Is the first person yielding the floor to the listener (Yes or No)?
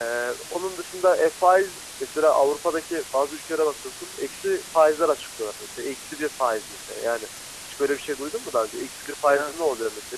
No